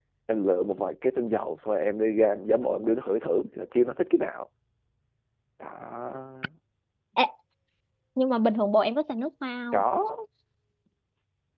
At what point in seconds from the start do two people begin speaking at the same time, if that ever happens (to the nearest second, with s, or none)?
none